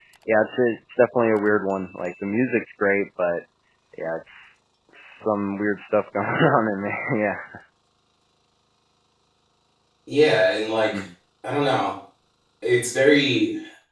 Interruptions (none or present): none